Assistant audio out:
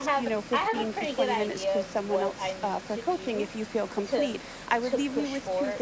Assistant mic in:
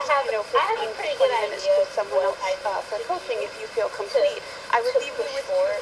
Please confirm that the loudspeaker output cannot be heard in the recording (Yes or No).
No